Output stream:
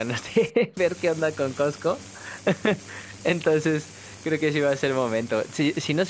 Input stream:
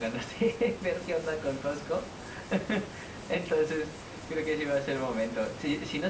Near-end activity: none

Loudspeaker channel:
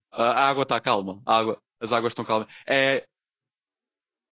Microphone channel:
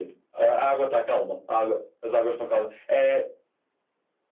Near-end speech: none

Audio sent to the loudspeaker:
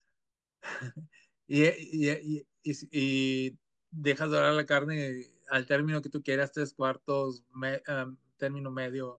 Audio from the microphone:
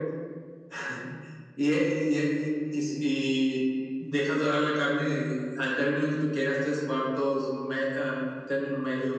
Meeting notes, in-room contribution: none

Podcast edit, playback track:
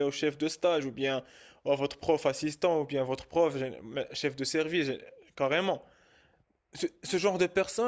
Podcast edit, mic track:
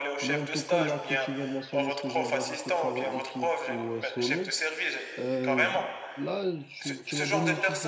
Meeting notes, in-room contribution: present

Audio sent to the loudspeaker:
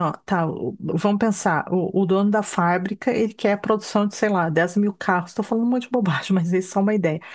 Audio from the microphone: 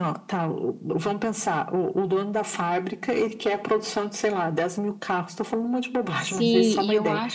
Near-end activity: present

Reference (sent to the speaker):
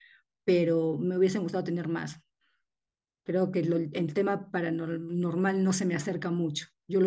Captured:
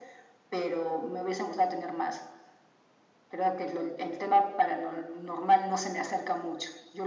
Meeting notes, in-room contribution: none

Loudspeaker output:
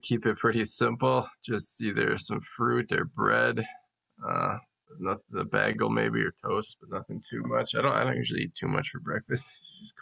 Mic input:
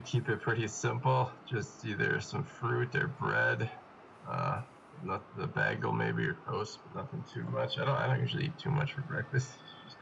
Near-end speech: none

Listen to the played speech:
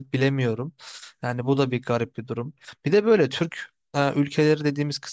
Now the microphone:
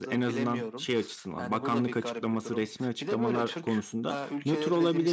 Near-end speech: present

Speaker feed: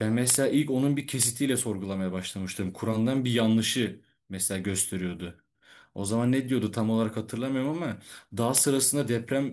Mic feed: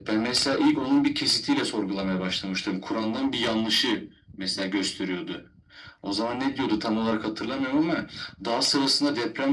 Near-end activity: none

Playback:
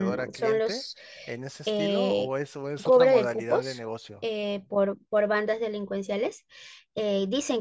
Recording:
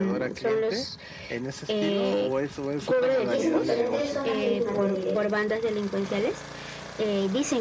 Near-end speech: present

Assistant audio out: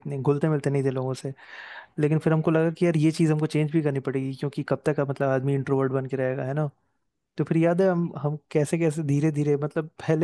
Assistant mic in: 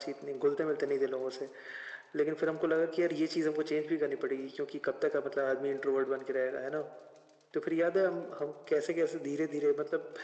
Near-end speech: none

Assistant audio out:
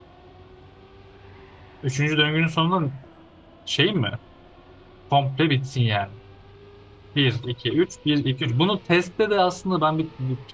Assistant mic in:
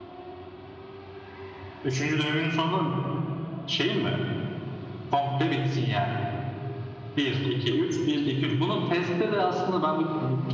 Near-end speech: none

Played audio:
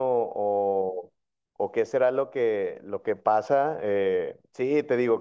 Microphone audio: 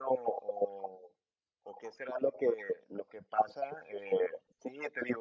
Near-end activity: none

